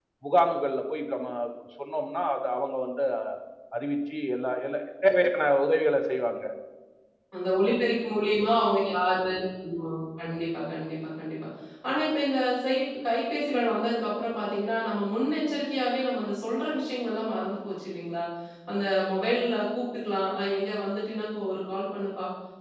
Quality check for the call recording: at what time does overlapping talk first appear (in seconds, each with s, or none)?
none